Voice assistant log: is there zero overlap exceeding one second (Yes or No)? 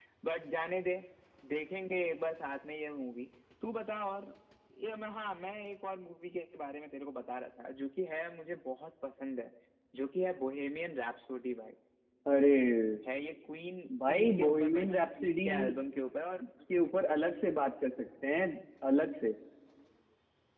No